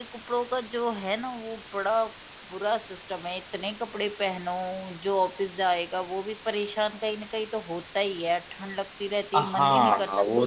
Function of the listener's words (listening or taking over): taking over